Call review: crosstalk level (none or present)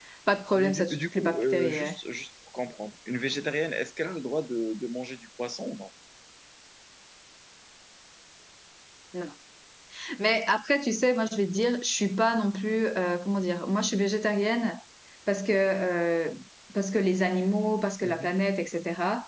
present